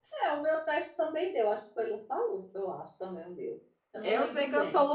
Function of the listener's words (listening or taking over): taking over